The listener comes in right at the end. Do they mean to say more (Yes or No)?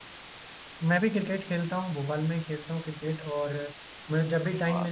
No